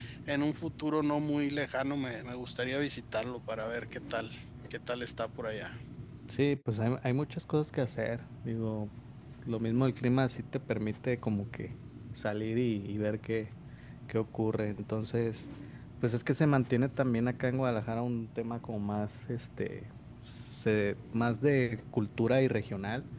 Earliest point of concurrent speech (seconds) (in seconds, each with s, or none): none